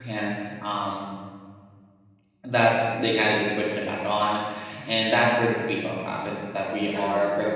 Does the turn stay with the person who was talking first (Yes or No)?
Yes